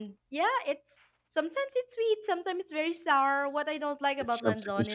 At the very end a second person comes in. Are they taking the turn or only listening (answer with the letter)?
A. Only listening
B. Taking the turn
A